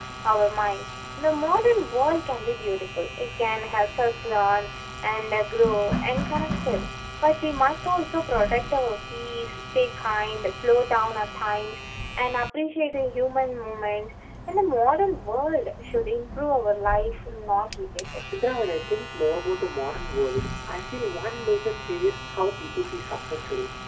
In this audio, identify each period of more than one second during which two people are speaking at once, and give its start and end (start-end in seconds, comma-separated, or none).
none